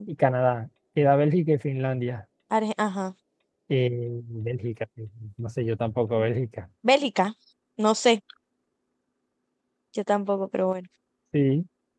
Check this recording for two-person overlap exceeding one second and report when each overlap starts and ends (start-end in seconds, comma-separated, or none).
none